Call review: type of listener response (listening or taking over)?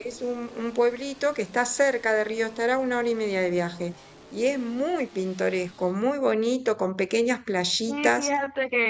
taking over